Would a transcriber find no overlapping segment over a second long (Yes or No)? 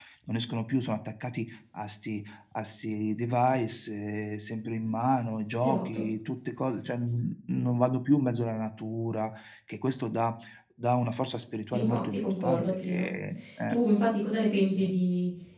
No